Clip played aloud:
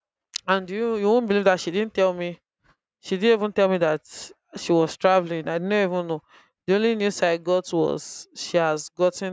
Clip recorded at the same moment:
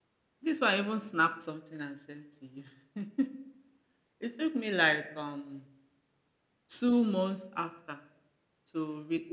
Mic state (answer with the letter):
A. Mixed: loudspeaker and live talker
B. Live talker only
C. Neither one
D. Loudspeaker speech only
B